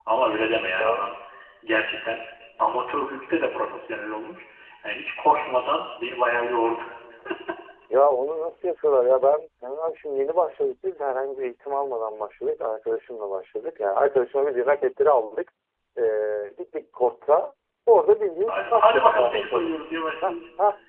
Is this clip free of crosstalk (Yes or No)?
No